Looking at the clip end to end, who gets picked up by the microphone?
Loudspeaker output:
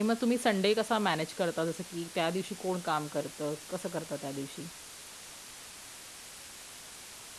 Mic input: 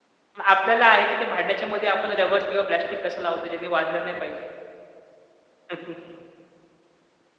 user only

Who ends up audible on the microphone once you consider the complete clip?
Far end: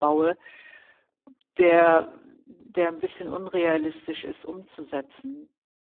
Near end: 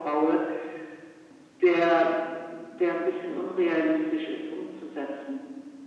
echo only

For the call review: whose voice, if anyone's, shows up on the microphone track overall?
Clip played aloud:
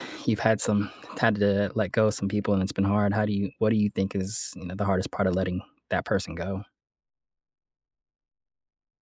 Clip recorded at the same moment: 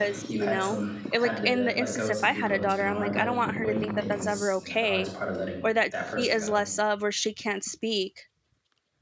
both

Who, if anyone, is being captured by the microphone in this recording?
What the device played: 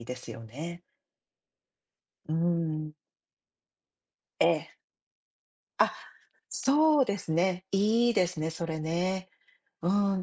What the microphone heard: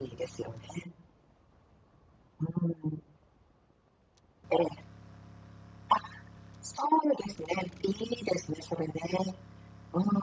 echo only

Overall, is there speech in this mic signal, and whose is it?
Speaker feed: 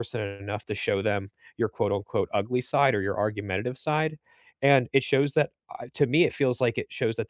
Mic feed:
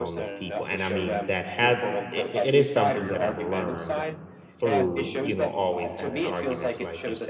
both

